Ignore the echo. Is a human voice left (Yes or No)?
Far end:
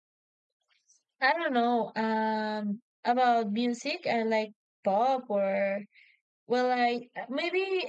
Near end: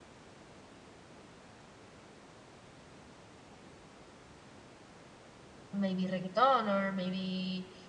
Yes